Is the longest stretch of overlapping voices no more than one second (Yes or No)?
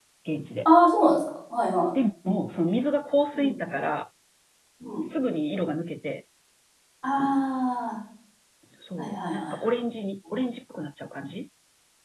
Yes